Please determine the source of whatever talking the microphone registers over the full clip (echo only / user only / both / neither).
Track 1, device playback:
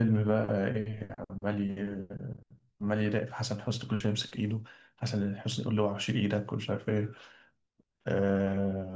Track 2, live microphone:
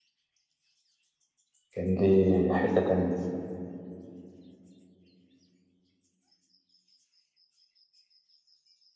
user only